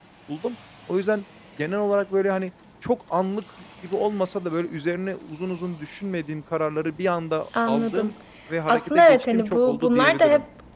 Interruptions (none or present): present